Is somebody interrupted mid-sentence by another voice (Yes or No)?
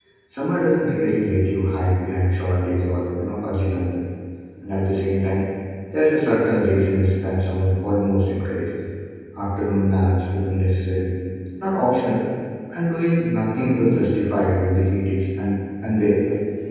No